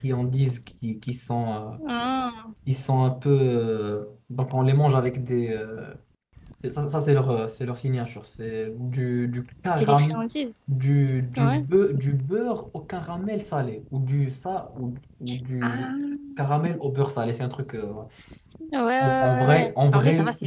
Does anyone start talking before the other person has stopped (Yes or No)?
Yes